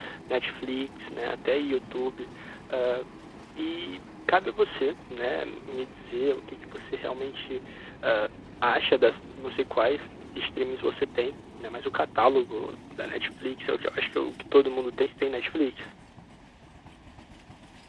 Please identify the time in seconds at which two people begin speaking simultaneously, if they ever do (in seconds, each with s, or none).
none